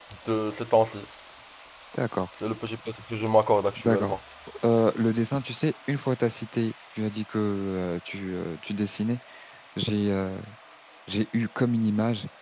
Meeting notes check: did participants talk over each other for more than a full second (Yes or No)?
No